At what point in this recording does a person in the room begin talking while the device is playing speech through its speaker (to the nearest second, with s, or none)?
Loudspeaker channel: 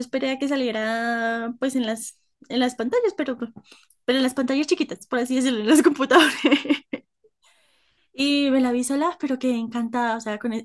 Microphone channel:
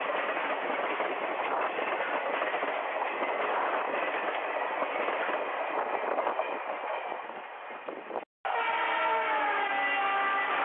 none